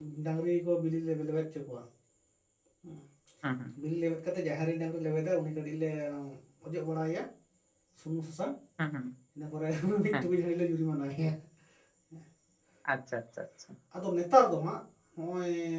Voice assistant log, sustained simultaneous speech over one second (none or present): none